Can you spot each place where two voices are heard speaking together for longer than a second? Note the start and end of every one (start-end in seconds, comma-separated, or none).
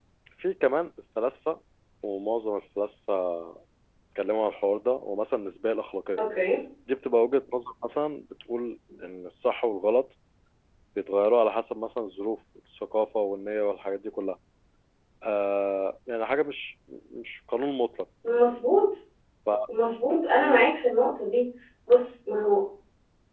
none